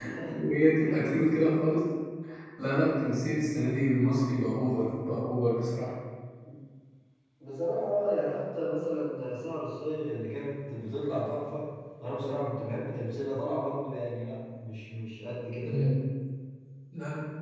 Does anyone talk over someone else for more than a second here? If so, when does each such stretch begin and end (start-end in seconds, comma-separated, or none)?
none